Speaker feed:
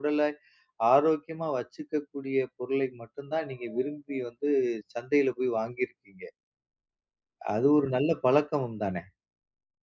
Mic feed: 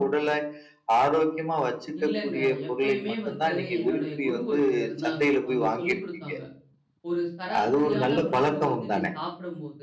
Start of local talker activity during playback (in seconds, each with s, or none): 2.0 s